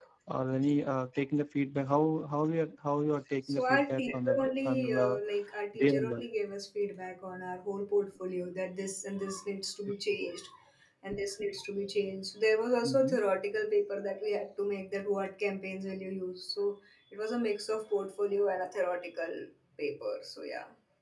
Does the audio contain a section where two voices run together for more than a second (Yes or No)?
Yes